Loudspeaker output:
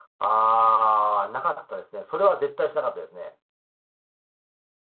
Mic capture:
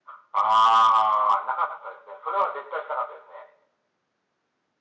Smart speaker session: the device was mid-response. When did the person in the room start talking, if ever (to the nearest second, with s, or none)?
none